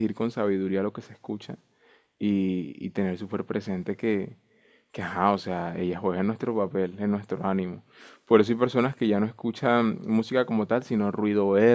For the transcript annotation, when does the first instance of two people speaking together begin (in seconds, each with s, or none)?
none